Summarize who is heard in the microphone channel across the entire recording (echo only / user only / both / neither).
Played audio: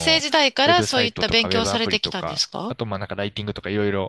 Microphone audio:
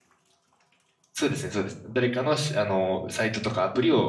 user only